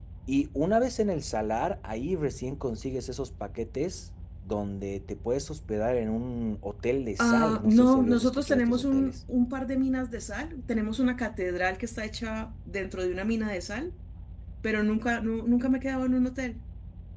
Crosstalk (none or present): present